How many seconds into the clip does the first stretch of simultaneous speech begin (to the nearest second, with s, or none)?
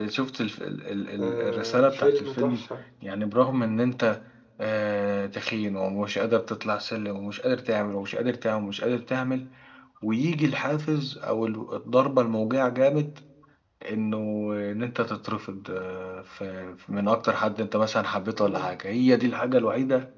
1 s